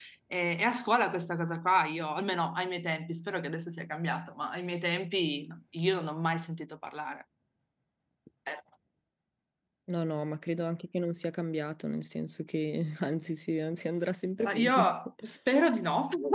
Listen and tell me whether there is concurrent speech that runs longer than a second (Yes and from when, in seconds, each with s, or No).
No